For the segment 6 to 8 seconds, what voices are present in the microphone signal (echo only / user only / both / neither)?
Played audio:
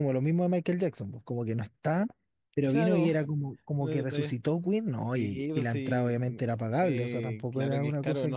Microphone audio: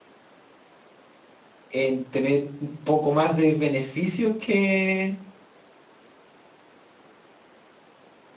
neither